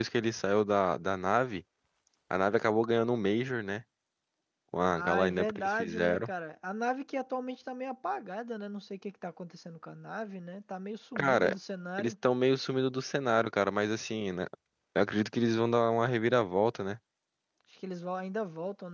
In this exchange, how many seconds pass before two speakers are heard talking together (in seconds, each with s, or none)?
4.8 s